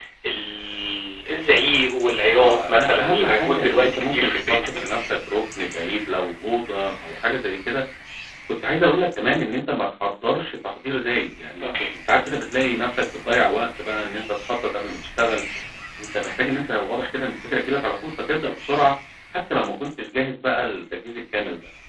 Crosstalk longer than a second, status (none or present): present